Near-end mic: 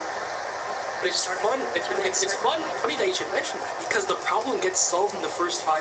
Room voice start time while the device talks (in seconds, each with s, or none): none